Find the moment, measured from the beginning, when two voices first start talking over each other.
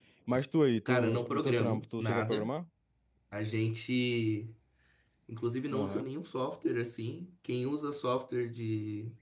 0.9 s

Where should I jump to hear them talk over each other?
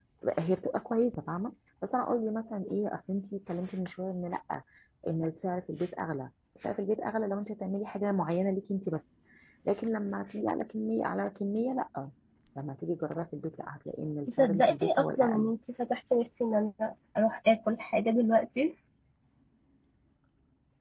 14.3 s

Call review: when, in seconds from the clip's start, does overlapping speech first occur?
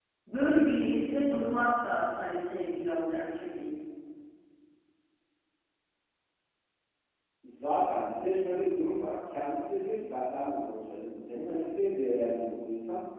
none

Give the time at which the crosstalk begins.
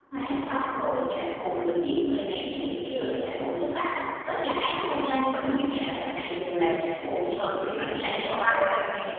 7.6 s

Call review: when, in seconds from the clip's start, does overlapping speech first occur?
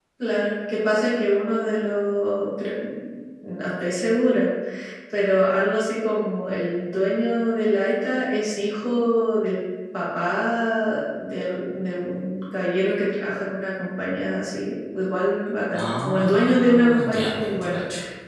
15.7 s

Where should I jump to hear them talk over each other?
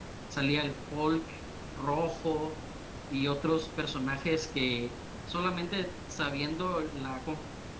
none

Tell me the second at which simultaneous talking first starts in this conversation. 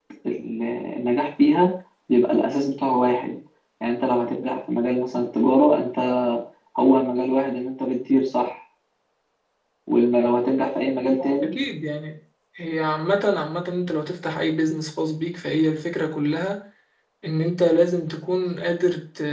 none

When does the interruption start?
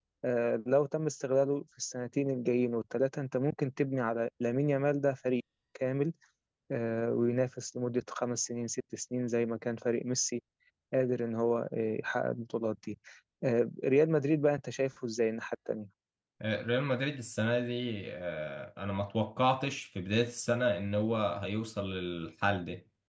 none

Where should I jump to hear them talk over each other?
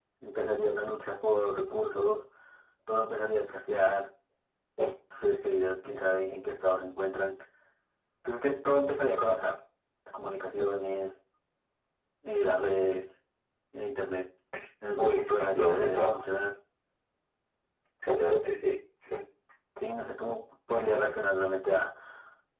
15.0 s

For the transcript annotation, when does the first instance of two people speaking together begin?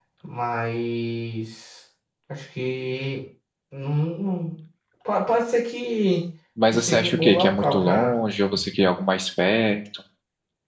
6.7 s

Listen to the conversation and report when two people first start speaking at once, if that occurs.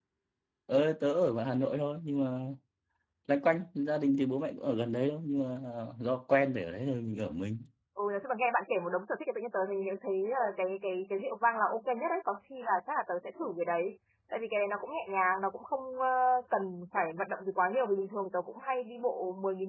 none

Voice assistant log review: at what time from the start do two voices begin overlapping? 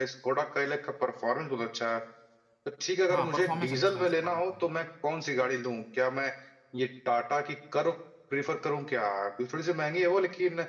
3.1 s

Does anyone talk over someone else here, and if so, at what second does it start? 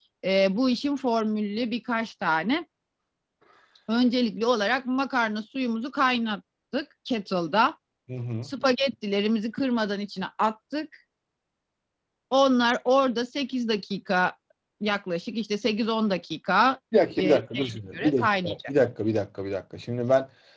17.2 s

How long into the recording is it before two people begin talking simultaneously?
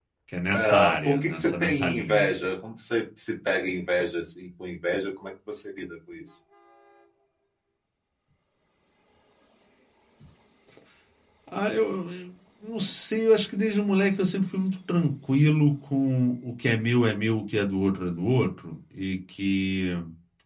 0.5 s

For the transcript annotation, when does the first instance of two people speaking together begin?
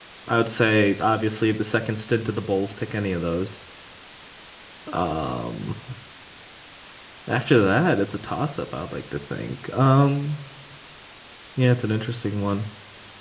none

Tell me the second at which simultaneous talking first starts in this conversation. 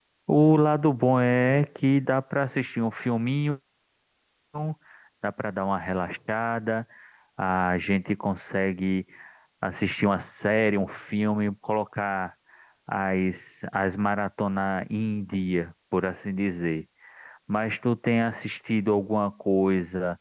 none

